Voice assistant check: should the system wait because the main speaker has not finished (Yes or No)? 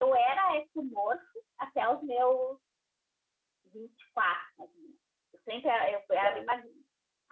Yes